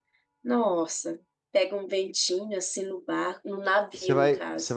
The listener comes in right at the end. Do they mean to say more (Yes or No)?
Yes